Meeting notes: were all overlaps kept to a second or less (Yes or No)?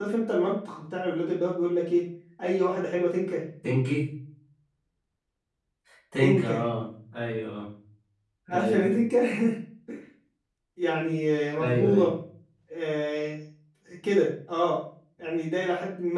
Yes